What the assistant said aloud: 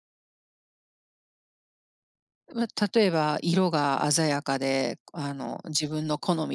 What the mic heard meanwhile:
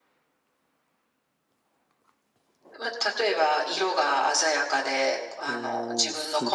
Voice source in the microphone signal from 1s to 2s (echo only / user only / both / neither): neither